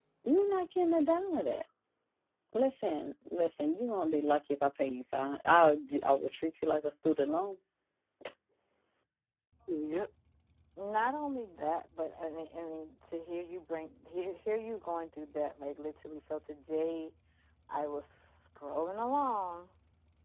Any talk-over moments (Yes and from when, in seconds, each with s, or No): No